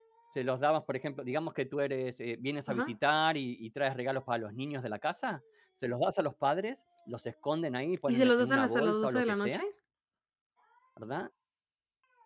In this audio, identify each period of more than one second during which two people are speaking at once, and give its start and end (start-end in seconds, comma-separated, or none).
8.1-9.6